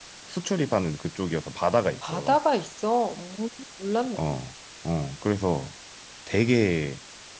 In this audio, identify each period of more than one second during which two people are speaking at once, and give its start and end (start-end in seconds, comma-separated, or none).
none